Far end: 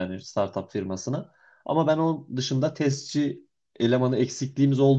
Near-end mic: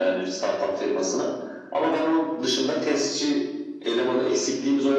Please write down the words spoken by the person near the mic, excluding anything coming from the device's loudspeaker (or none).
none